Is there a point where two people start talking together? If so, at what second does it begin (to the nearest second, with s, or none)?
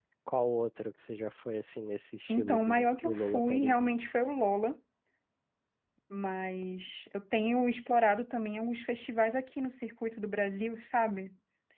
2 s